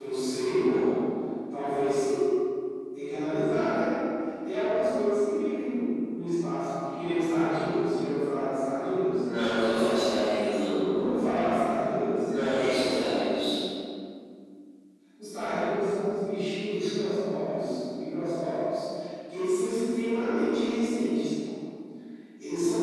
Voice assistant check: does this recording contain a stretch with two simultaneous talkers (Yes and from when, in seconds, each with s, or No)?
No